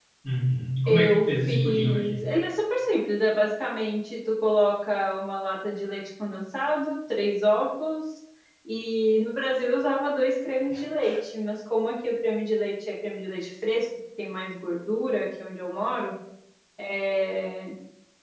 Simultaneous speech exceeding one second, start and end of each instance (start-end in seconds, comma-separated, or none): 0.9-2.2